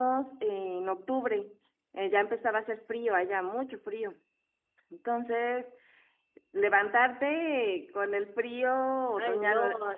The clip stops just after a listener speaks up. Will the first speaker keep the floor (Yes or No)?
No